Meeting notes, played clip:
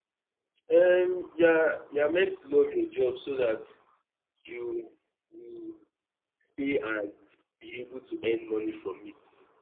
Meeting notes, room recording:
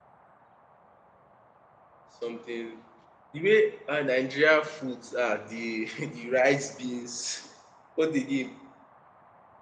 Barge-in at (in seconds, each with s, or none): 2.2 s